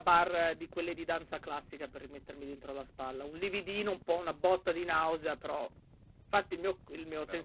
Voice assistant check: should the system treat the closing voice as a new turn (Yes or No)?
No